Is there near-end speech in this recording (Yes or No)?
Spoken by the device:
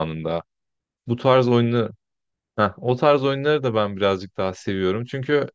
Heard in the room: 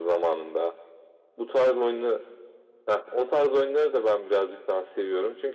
No